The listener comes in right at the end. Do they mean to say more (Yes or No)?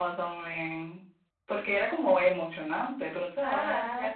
No